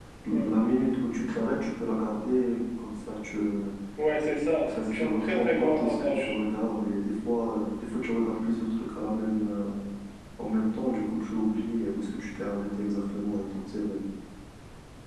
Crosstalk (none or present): present